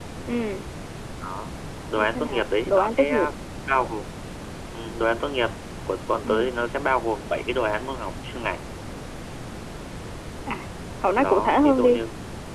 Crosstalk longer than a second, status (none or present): present